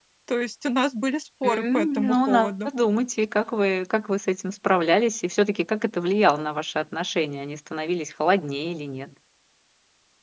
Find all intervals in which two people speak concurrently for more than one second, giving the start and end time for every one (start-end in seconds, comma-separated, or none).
1.4-2.7